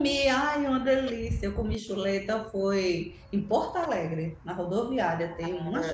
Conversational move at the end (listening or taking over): taking over